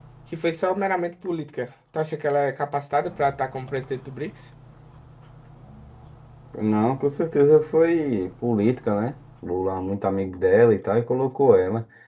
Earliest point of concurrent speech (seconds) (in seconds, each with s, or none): none